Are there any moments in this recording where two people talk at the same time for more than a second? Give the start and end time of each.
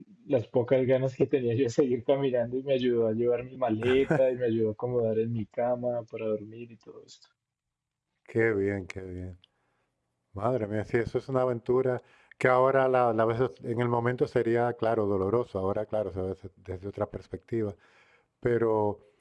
none

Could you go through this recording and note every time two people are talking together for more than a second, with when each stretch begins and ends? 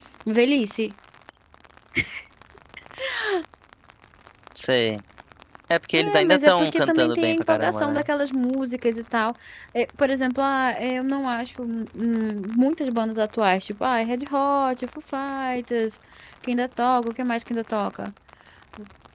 5.9-8.1

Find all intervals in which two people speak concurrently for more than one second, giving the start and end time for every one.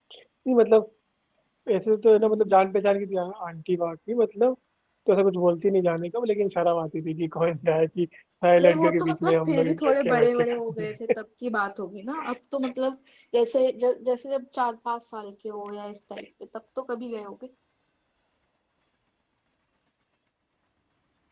8.6-10.9

